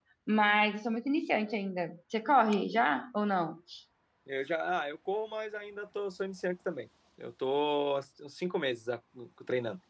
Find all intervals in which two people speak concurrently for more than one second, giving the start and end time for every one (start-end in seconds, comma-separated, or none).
none